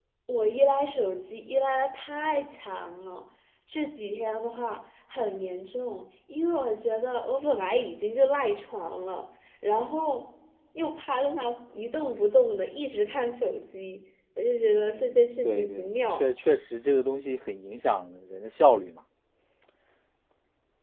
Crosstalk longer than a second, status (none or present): present